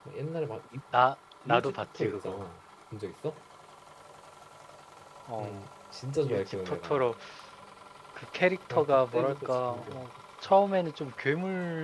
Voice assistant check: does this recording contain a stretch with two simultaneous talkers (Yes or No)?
Yes